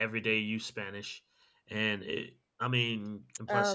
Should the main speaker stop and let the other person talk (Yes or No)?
No